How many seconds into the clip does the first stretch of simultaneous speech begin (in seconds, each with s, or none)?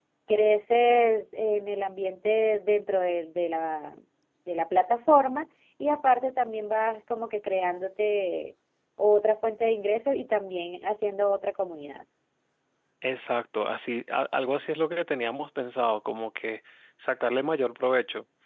none